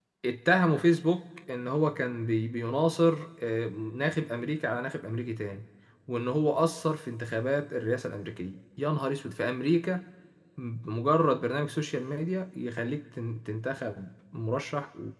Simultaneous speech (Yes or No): No